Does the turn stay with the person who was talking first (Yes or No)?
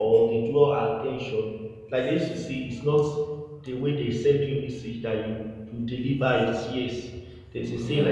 Yes